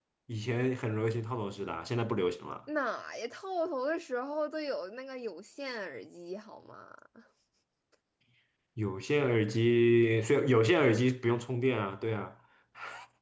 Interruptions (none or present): none